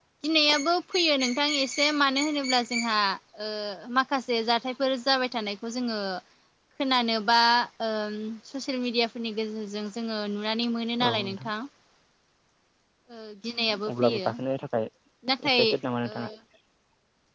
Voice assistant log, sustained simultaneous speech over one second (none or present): none